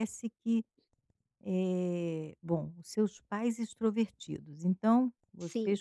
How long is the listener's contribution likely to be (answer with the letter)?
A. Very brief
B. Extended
A